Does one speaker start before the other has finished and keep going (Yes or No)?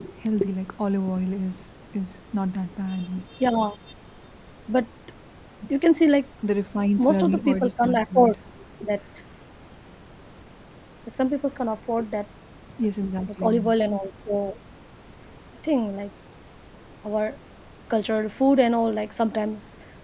Yes